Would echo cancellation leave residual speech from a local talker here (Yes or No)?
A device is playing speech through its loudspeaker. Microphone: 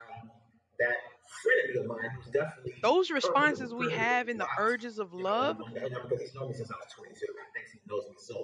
Yes